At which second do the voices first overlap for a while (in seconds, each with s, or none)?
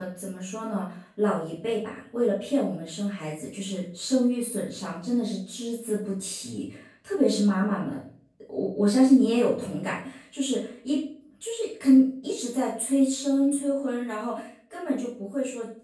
none